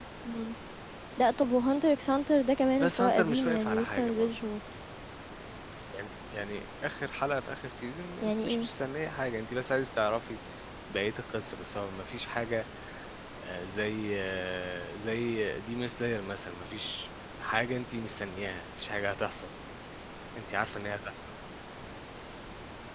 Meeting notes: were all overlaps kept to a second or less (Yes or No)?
No